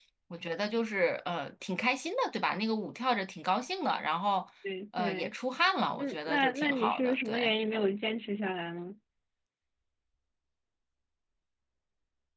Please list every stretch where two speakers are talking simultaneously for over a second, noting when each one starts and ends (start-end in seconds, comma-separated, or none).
6.0-7.6